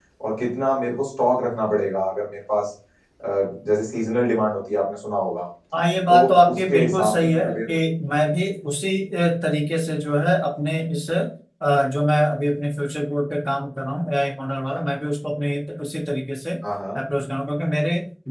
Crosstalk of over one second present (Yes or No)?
Yes